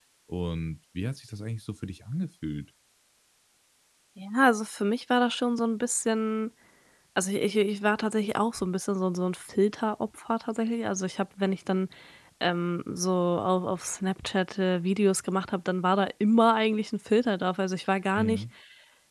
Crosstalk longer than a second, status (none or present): none